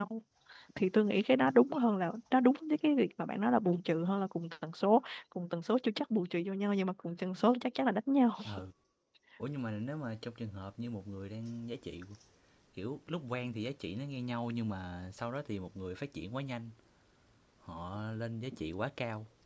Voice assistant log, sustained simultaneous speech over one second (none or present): none